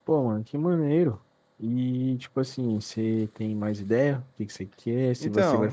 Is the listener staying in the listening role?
Yes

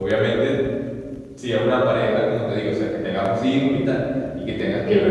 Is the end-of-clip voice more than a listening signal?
No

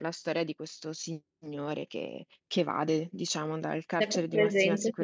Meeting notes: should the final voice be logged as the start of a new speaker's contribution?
Yes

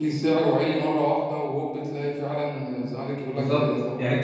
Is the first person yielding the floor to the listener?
Yes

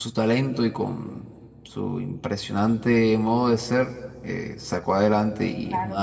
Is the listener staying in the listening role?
Yes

